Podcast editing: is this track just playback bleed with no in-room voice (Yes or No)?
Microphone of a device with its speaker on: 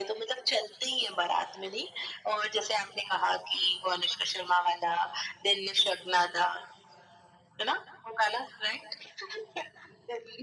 Yes